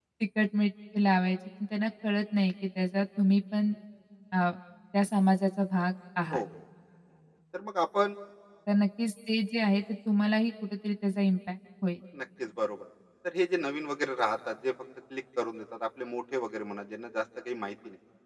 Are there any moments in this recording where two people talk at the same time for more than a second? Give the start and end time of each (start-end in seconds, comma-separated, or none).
none